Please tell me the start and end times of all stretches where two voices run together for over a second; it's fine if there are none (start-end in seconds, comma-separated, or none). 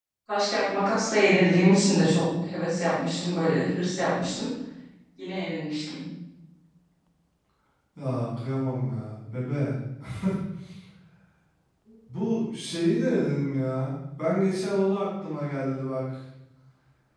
none